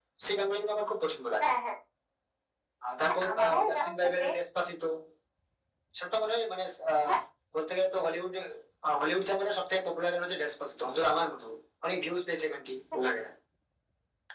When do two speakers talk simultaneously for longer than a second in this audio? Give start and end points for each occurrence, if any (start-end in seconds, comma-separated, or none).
3.0-4.4